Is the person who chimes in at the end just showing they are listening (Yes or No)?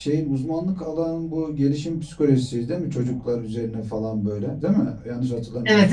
No